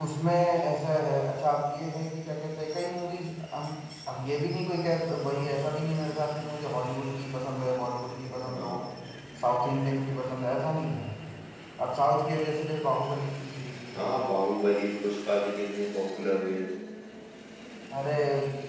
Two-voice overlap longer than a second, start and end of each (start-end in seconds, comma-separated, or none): none